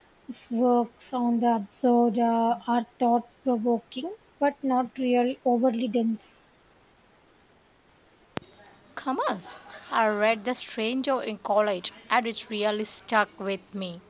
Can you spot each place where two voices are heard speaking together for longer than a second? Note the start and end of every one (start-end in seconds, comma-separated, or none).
none